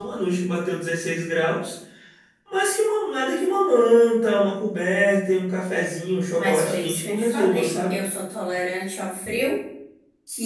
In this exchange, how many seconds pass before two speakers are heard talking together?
6.3 s

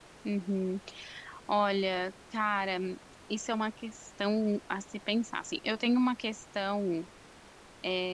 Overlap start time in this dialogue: none

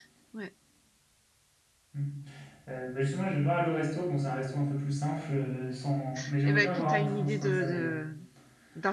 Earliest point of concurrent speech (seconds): 6.5 s

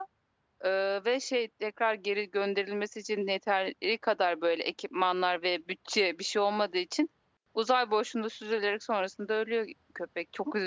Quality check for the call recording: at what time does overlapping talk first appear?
none

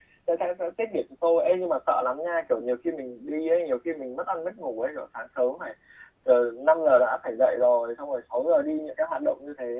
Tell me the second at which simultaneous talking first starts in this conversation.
none

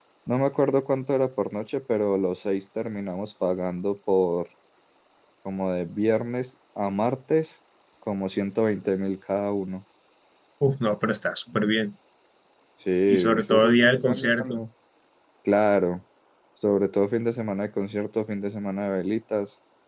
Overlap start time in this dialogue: 13.1 s

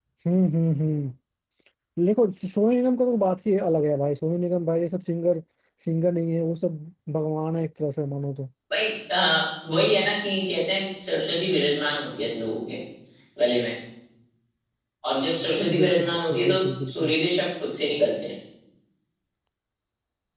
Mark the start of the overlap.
15.8 s

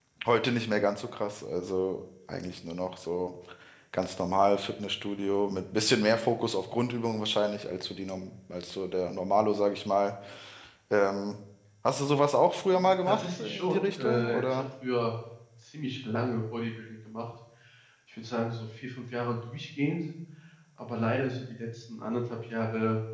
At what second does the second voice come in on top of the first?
12.7 s

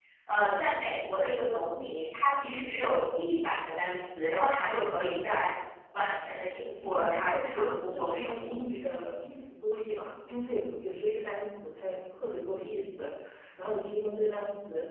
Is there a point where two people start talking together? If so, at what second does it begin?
6.8 s

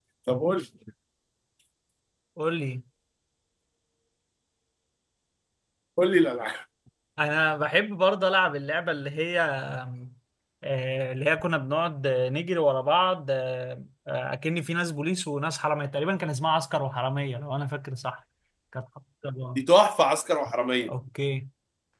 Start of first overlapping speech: none

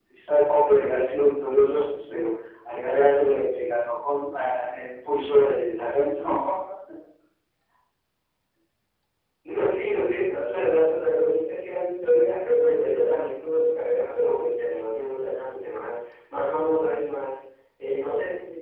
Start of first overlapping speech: none

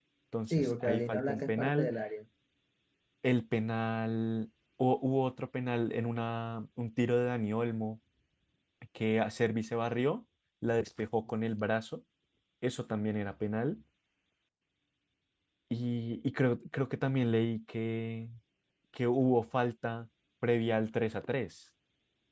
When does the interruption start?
0.5 s

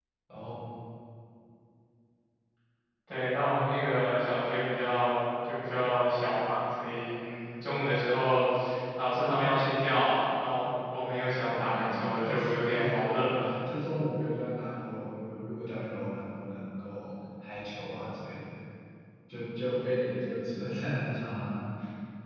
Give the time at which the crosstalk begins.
11.5 s

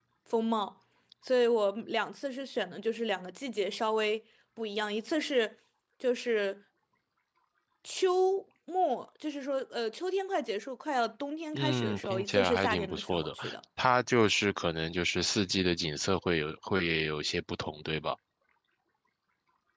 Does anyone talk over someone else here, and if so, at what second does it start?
11.5 s

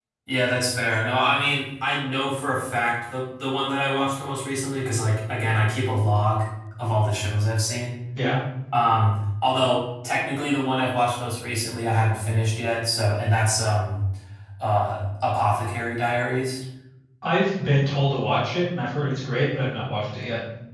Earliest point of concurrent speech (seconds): none

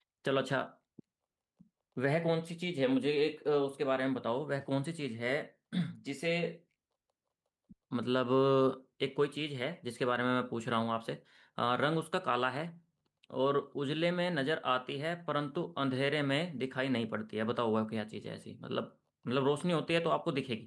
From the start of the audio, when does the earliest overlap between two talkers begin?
none

